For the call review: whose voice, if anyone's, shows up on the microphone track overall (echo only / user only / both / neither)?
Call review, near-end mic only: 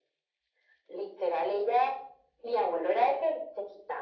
echo only